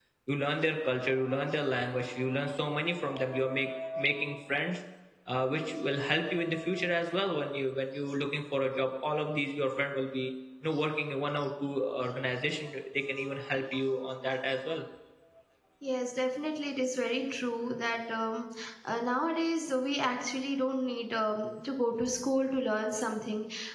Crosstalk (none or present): none